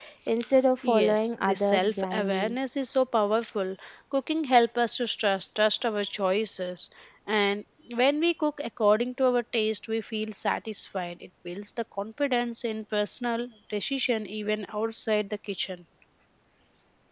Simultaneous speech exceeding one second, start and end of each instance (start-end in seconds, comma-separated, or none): 0.8-2.5